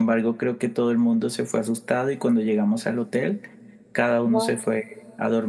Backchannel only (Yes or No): Yes